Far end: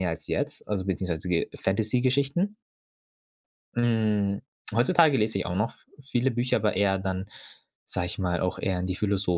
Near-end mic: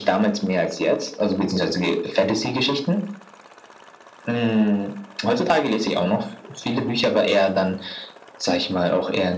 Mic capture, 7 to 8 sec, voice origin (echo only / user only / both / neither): echo only